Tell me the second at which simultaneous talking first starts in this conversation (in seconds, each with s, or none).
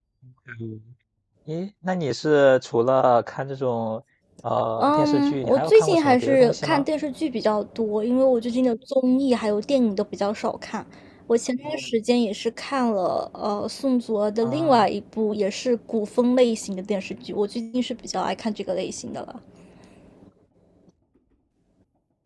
4.8 s